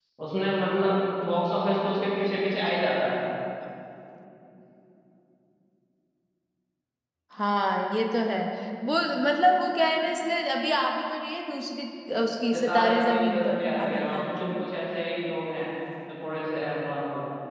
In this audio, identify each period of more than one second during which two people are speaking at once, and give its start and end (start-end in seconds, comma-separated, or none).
12.5-14.5